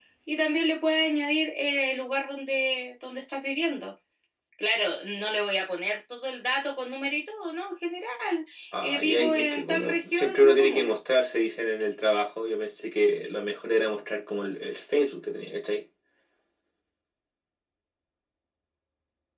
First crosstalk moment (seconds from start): 8.8 s

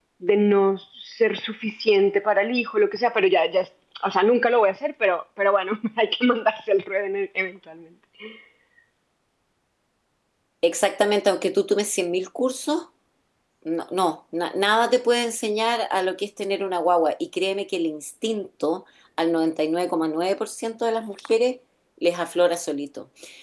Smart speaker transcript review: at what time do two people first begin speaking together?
none

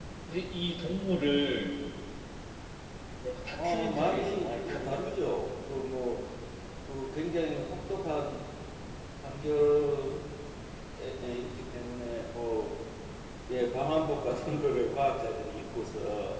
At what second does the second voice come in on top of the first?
3.6 s

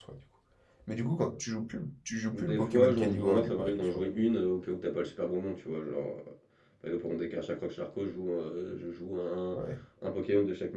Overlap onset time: 2.3 s

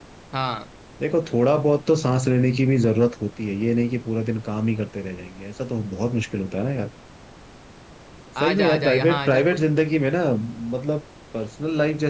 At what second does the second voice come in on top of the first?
8.4 s

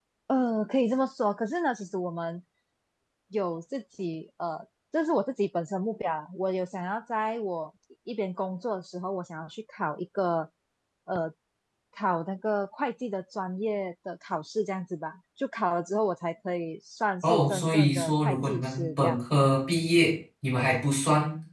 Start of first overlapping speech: 17.2 s

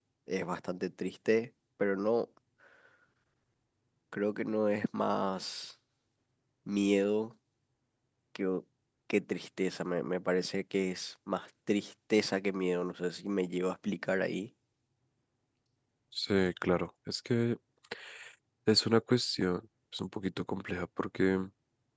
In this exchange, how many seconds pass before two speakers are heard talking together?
none

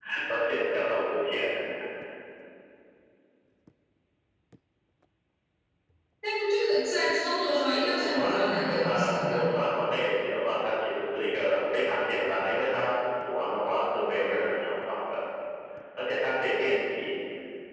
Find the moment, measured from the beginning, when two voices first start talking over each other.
7.4 s

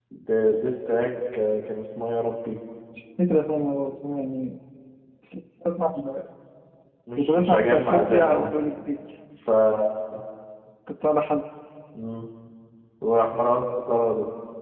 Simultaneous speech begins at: 7.2 s

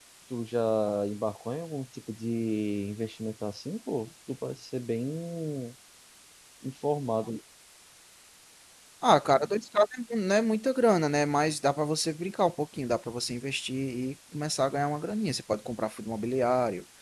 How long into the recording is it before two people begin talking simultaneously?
none

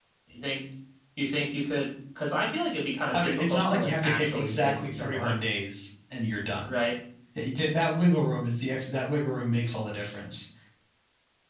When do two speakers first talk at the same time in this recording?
3.1 s

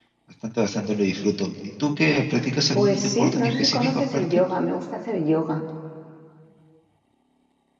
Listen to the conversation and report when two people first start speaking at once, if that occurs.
2.8 s

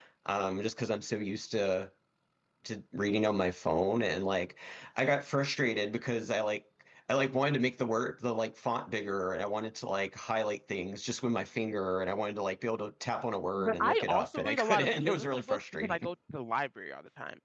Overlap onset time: 13.6 s

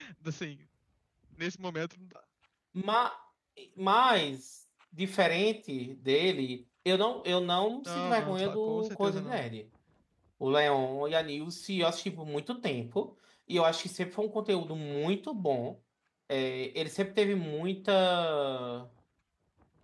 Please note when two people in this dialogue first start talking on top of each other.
7.8 s

